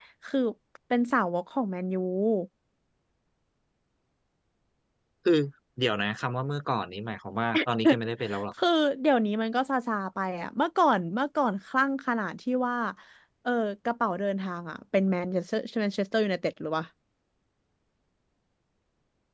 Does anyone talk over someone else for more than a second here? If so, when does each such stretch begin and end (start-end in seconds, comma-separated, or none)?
none